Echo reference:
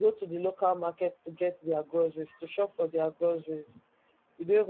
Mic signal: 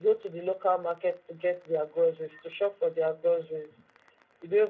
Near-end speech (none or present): none